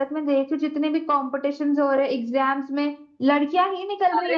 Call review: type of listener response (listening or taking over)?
taking over